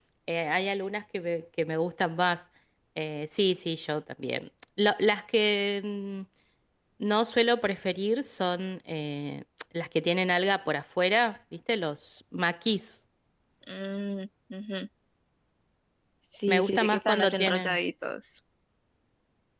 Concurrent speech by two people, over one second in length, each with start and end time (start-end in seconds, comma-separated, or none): 16.5-17.8